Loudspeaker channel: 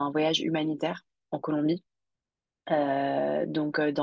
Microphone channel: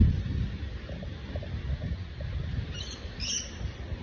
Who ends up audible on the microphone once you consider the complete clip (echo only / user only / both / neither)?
neither